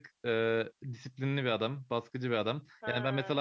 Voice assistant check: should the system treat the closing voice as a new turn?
No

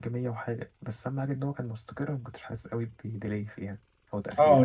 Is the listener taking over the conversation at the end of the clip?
Yes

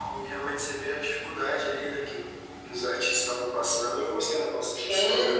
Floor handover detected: Yes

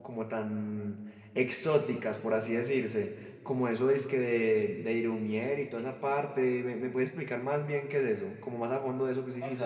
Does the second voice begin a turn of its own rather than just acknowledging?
Yes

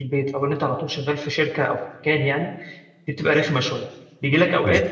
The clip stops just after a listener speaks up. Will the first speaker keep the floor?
Yes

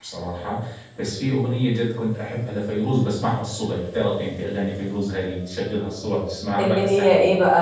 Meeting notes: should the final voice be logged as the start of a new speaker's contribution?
Yes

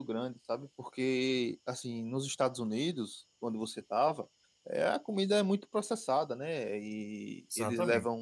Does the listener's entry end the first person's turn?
No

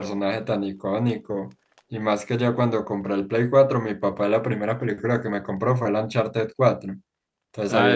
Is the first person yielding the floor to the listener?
Yes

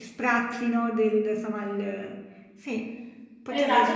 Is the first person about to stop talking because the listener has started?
Yes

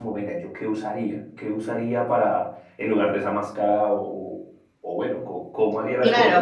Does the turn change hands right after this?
Yes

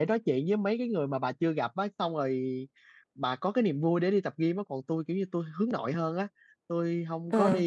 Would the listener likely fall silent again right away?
Yes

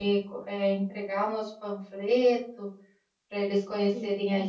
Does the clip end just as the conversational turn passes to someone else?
No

